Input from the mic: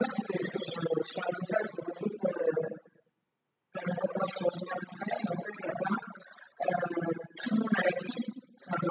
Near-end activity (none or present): none